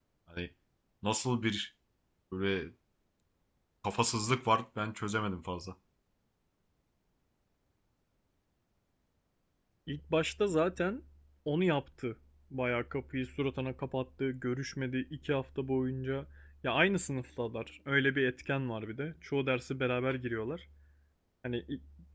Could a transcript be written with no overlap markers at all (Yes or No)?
Yes